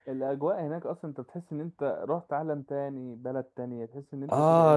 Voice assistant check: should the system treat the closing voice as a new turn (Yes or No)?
Yes